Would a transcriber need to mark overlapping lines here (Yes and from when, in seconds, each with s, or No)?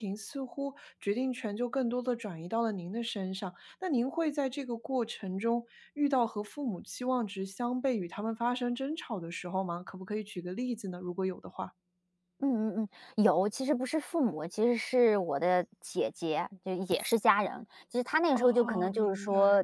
Yes, from 18.3 s